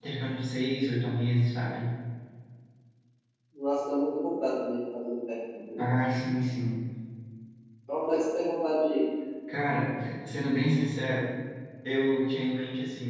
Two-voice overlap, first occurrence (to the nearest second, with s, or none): none